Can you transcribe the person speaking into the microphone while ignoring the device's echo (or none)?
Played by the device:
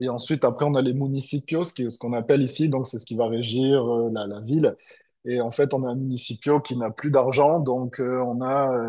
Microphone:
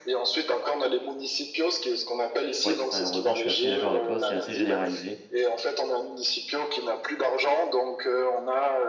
ouais, malheureusement, je suis assez d'accord avec toi, c'est assez généralisé.